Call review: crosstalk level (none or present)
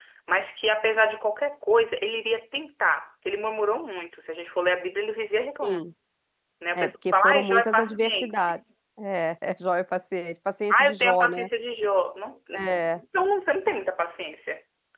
present